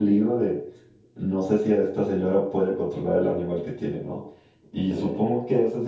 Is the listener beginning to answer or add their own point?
No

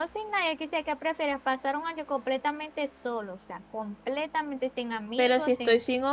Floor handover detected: Yes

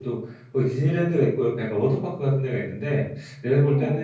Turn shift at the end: No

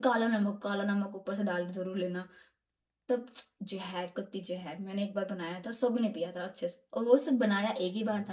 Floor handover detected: No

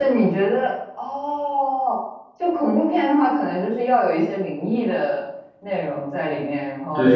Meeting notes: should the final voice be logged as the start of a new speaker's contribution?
Yes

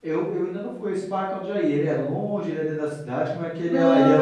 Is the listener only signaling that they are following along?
No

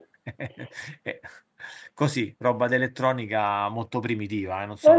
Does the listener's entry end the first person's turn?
Yes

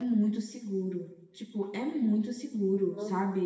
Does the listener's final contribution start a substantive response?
No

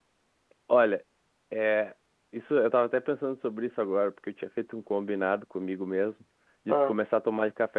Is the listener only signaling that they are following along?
Yes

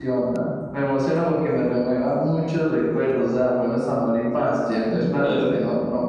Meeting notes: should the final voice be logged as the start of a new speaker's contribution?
No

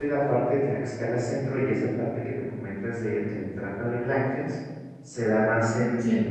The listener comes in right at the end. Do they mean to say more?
No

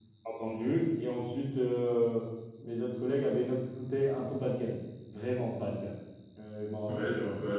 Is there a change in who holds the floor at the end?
Yes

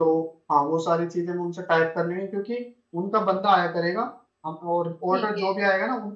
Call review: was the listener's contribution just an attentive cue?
Yes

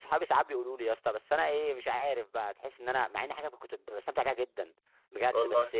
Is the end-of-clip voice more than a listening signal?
No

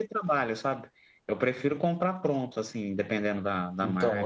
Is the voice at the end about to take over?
Yes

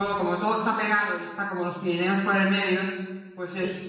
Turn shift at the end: No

